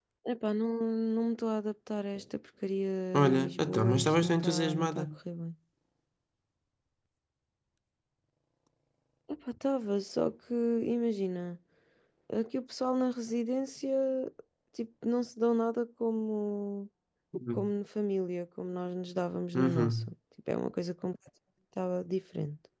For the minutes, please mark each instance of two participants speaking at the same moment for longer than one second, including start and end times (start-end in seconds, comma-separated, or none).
3.1-5.1